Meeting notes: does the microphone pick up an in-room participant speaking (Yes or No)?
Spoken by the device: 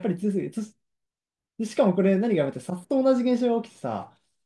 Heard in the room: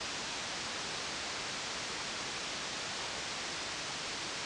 No